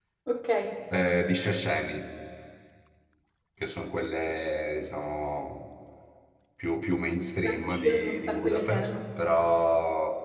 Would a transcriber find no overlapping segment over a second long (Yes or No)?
No